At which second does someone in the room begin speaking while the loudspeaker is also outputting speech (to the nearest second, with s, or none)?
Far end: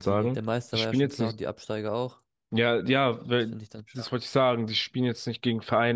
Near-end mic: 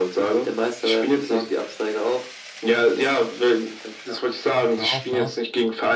5 s